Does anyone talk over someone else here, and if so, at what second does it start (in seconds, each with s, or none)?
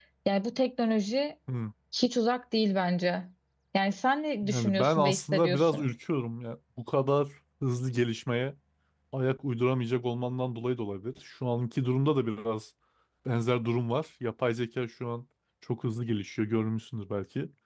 4.4 s